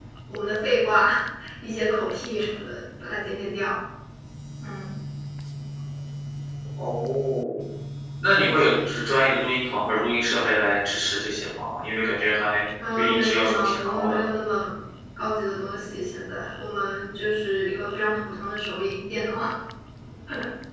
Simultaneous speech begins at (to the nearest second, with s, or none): 13 s